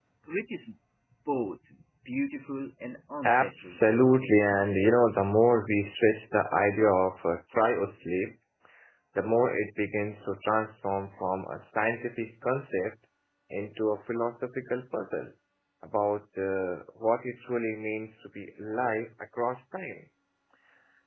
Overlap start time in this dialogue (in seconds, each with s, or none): 3.2 s